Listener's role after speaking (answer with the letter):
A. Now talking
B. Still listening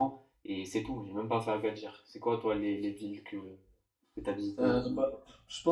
A